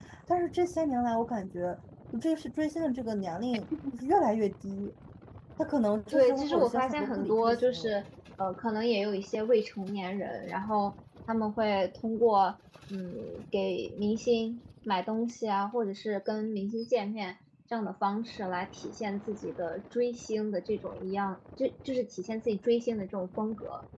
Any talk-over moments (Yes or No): Yes